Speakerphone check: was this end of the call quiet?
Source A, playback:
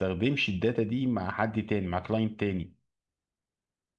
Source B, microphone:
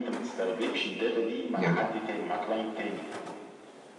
No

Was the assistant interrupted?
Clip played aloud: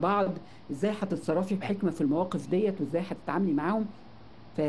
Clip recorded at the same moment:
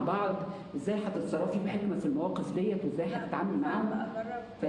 Yes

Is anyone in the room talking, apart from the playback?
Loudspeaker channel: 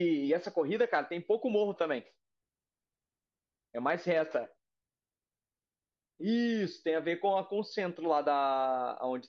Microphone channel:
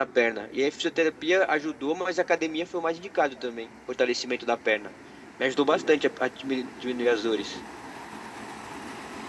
Yes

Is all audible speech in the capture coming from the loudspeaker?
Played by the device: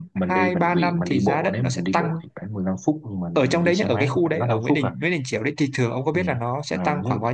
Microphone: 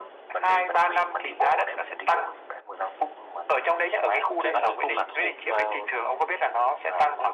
No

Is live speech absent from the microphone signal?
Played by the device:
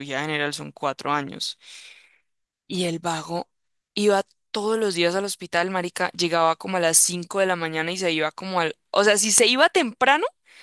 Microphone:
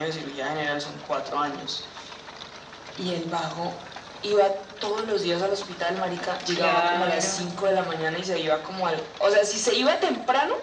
No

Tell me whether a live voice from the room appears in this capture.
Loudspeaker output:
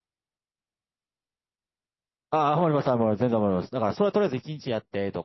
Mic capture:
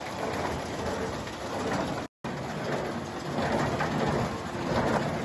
No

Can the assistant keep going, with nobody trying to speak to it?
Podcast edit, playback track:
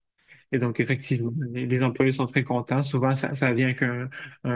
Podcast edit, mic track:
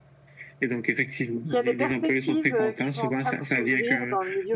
No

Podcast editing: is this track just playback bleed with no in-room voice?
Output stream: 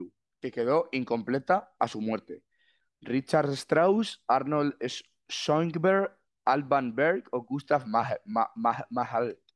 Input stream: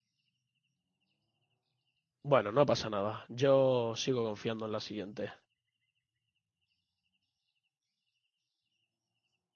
No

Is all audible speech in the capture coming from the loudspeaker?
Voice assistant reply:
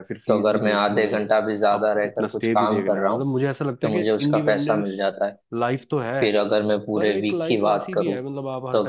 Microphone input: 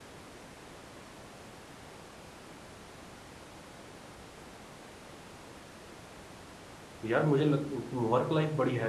No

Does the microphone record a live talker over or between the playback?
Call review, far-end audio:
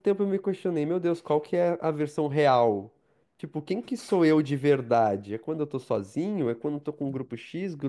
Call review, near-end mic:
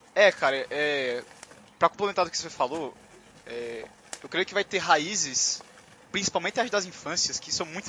Yes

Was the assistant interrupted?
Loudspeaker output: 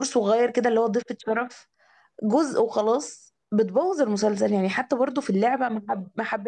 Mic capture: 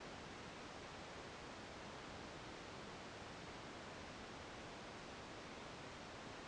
No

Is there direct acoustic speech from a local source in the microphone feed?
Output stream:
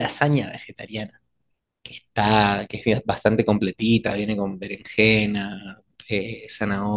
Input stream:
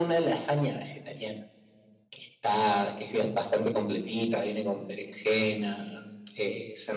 No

